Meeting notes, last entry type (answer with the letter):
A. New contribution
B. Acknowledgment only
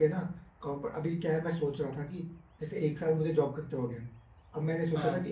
B